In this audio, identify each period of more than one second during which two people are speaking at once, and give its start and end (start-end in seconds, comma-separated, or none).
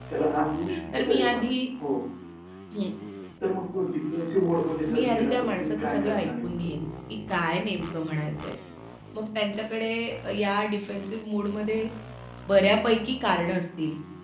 4.9-6.7